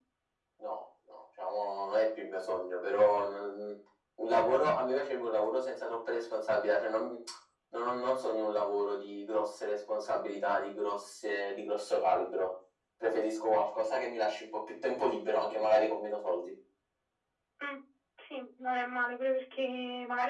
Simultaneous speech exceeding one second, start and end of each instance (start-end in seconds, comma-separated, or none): none